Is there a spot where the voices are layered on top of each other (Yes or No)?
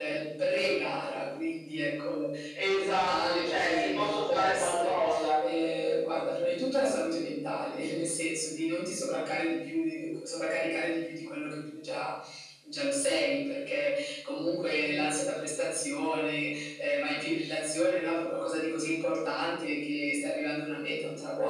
Yes